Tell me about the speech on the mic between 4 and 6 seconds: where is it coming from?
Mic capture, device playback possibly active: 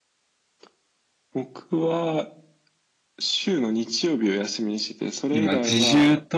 both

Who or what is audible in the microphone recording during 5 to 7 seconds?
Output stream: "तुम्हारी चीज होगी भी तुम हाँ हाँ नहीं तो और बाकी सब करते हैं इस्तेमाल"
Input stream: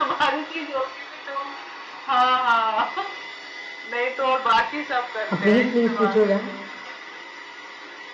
both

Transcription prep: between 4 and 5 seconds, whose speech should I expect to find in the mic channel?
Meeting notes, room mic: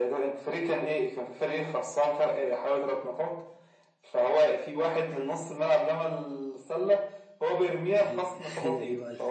echo only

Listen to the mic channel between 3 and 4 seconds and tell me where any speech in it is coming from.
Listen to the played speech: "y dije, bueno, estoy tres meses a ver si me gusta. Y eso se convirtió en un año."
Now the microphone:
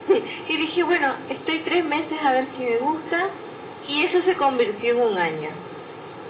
echo only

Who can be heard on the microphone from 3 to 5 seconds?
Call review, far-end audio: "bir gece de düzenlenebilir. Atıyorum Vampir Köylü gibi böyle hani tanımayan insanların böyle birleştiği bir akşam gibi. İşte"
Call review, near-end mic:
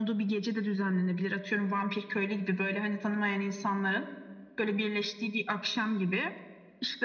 echo only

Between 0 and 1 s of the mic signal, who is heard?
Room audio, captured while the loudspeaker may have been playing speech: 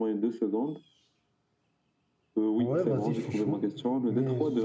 echo only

